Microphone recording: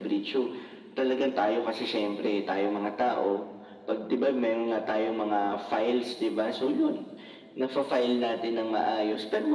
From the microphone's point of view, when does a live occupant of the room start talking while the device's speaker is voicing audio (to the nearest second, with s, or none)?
none